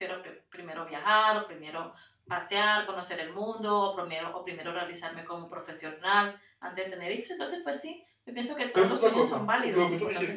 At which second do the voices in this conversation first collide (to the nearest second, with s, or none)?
9 s